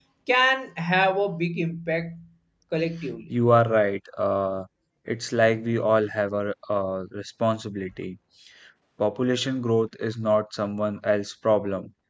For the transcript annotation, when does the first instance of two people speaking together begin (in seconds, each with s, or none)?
none